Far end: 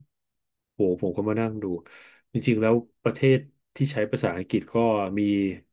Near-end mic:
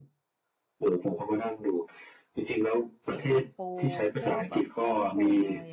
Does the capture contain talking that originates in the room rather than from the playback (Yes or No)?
Yes